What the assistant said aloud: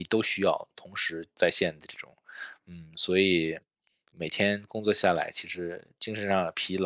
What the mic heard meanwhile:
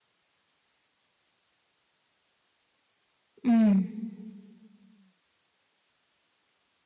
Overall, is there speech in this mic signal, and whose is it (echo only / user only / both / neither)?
user only